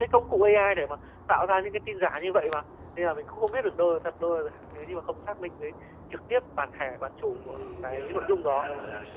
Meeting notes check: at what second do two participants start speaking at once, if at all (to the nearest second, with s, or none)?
7 s